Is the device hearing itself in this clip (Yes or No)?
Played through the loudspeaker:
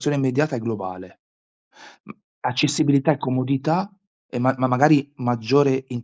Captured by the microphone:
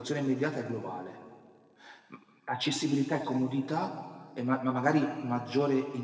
Yes